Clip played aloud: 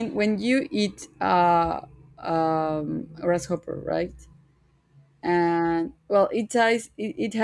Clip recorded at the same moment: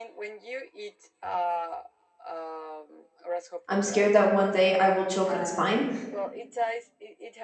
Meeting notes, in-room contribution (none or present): present